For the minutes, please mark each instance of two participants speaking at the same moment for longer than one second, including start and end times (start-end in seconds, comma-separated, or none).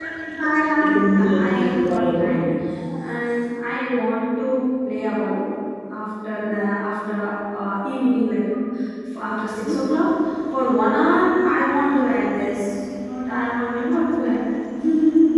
0.8-2.2